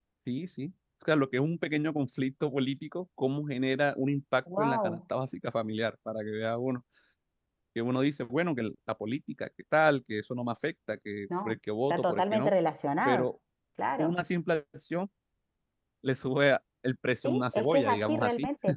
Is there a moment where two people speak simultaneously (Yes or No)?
Yes